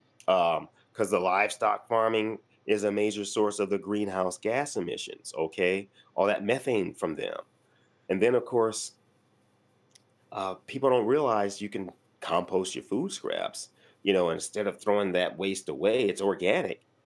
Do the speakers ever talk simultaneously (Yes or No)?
No